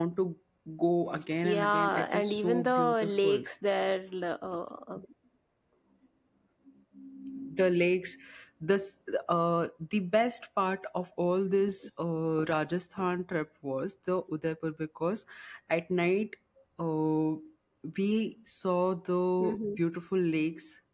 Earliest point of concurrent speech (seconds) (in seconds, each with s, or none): 1.4 s